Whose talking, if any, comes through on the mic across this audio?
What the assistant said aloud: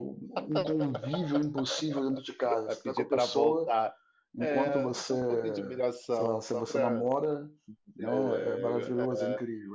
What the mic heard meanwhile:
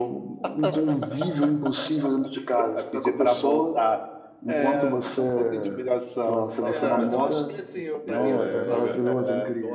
both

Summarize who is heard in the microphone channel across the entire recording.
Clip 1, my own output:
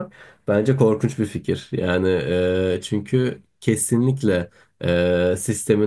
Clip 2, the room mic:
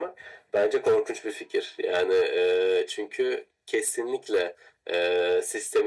echo only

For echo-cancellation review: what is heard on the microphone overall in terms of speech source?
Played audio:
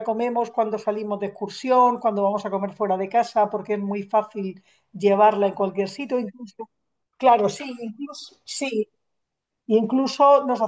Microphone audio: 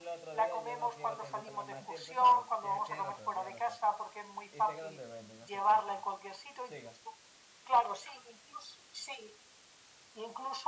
both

